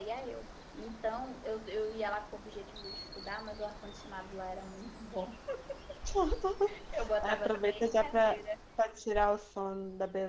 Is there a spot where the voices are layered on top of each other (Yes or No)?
Yes